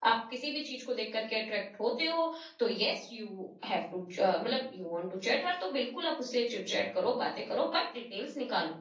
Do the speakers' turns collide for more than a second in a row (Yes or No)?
No